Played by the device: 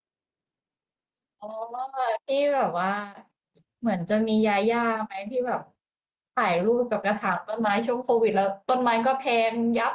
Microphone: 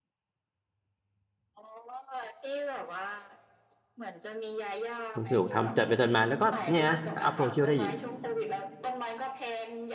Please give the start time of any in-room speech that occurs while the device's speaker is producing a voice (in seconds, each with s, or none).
5.1 s